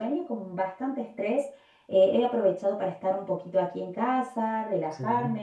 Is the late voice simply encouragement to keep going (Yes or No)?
Yes